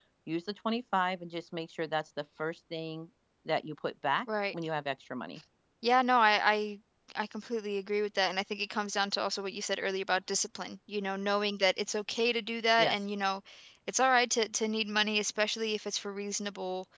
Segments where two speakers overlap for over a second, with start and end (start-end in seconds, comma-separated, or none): none